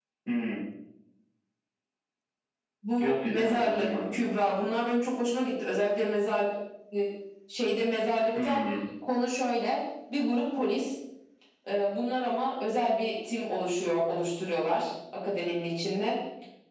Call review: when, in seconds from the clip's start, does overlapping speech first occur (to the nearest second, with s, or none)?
3 s